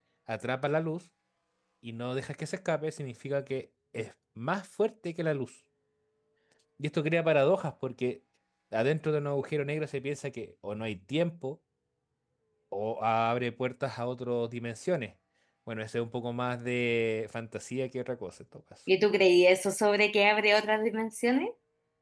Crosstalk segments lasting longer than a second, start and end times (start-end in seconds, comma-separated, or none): none